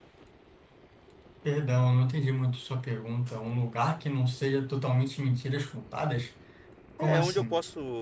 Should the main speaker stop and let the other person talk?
Yes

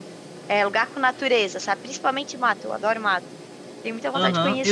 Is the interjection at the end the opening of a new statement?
Yes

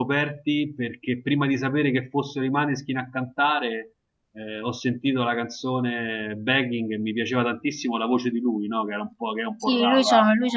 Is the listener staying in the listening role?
No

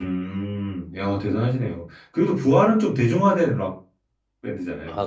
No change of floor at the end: No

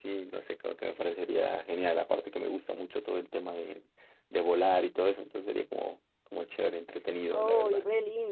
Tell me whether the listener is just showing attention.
No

